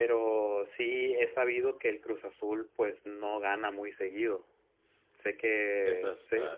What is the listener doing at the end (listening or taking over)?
listening